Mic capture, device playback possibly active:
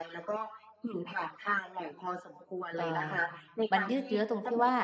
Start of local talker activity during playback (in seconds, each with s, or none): 2.8 s